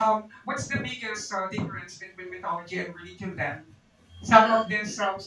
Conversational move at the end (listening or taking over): listening